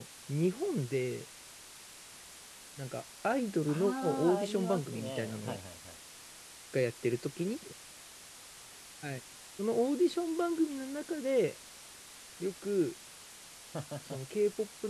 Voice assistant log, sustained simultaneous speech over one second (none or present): present